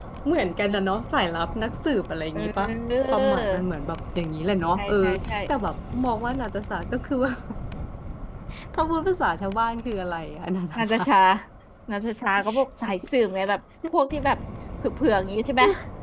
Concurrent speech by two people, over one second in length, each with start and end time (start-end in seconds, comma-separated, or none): none